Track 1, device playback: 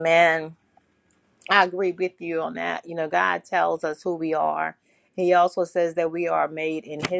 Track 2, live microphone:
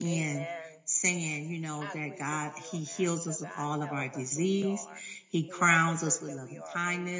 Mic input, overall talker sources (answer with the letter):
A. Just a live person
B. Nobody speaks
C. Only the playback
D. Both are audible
D